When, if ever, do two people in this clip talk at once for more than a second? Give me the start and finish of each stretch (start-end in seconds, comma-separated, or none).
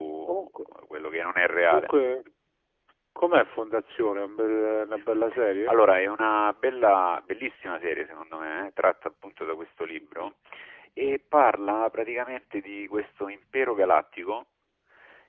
none